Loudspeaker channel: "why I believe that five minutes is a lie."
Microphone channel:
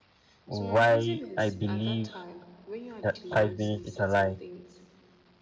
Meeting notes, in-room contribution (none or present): present